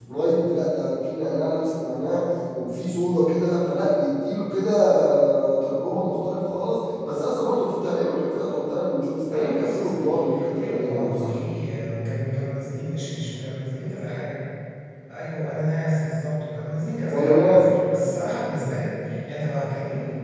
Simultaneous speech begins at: 9.3 s

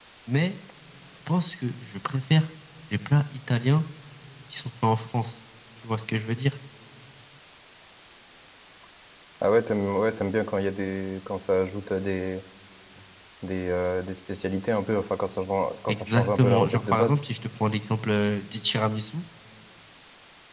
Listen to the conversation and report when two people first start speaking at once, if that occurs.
15.9 s

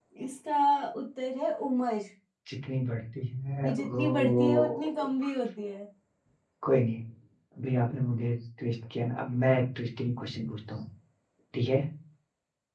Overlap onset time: 3.6 s

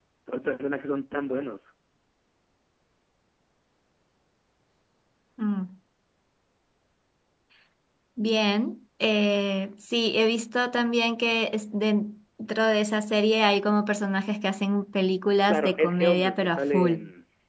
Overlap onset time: 15.5 s

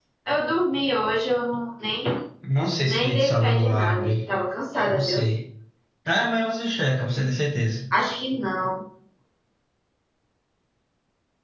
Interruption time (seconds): 2.9 s

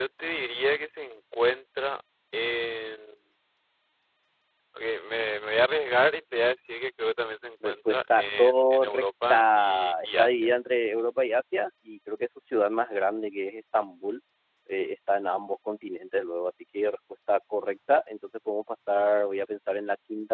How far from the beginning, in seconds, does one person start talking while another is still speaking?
7.6 s

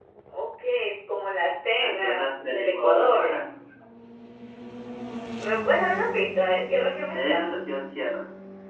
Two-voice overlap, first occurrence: 1.8 s

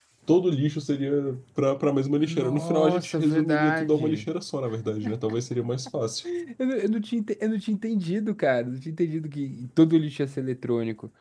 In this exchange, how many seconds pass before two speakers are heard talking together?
2.2 s

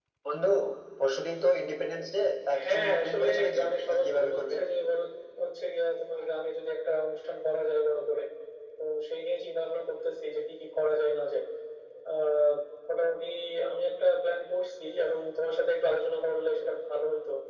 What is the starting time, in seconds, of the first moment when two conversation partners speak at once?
2.5 s

